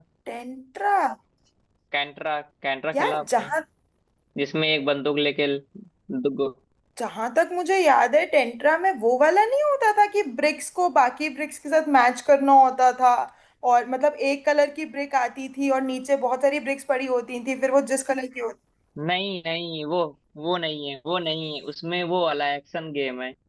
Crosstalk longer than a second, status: none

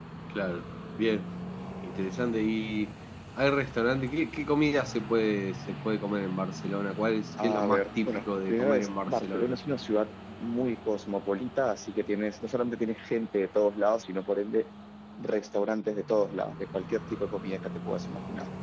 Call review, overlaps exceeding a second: present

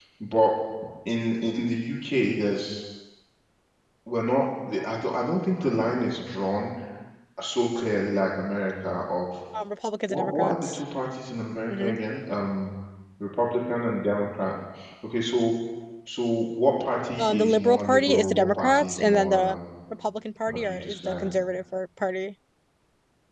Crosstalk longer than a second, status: present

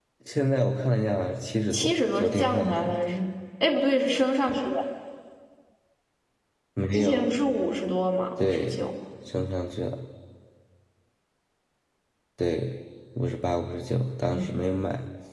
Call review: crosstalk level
present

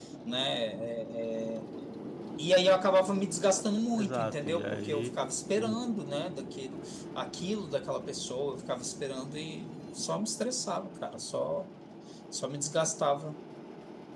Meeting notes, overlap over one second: present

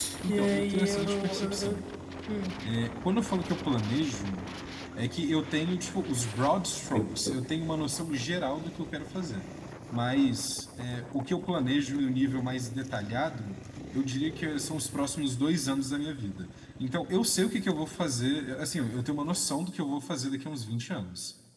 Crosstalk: present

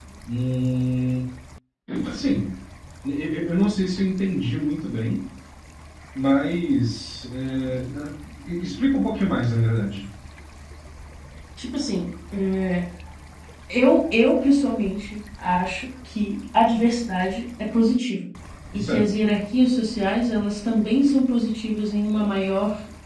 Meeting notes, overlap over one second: none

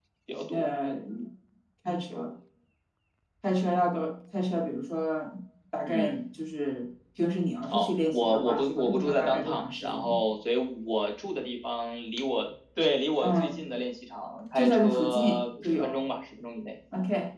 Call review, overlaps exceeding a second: present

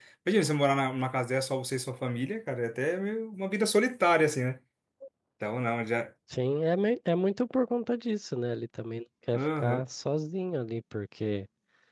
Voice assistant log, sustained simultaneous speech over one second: none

